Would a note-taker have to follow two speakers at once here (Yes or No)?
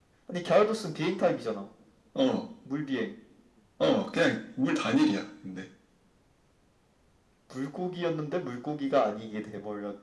No